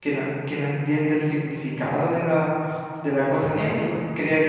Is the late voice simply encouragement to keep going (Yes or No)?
Yes